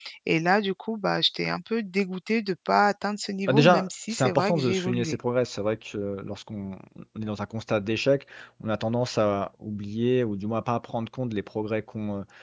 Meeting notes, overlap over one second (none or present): present